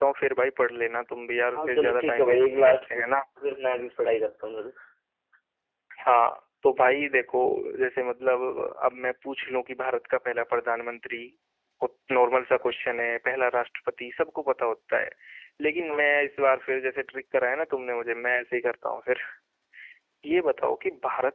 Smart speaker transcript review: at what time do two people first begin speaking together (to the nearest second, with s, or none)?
2 s